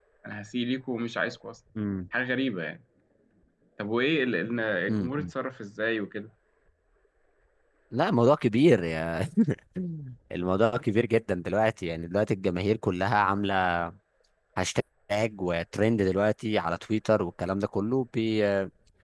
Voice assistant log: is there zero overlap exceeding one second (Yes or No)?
Yes